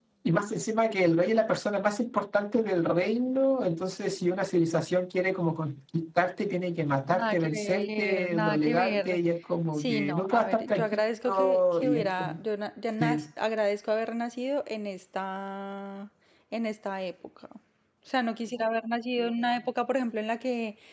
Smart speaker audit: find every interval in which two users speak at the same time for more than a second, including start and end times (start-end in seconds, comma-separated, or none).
7.1-9.2, 9.8-12.3